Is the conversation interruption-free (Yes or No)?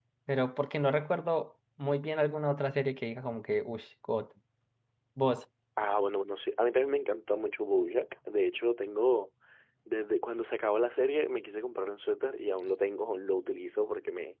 Yes